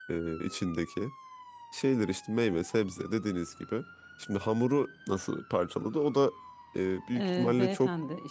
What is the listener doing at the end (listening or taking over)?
taking over